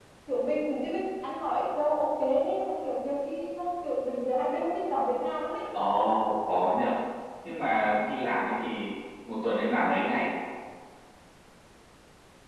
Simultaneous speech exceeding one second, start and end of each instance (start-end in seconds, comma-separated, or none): none